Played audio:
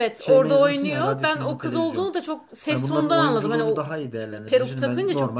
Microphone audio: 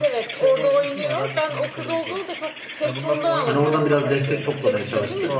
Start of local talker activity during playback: 3.4 s

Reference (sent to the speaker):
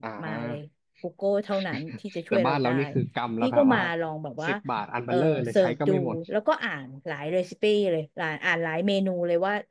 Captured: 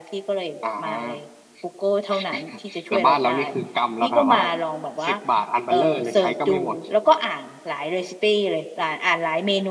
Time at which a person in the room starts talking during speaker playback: none

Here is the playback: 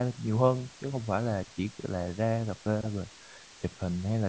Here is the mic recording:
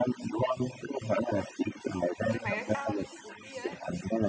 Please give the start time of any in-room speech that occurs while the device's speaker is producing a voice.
2.3 s

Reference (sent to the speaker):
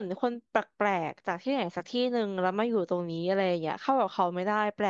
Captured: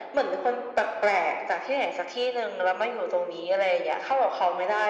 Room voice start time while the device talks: none

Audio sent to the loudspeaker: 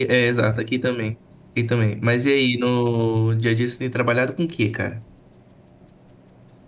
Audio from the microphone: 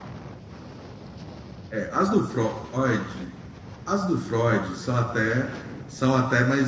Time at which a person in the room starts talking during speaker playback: 1.7 s

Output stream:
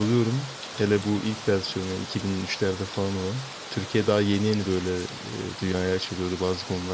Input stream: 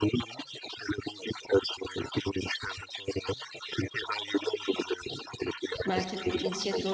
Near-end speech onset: 5.8 s

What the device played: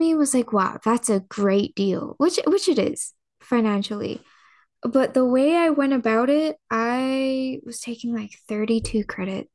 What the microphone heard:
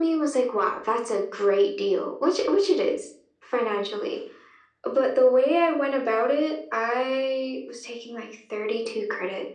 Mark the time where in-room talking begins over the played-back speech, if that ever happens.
none

